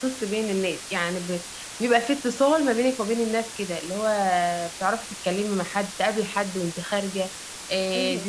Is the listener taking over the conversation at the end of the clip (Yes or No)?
No